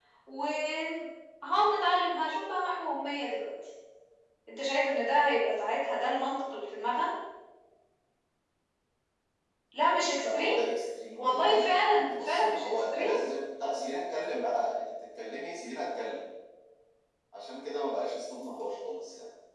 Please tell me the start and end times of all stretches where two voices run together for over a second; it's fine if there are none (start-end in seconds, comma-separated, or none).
11.2-13.3